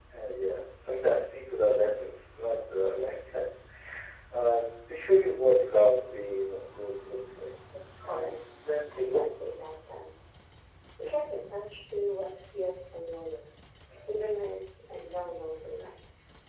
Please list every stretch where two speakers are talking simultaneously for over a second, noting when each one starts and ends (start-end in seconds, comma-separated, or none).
none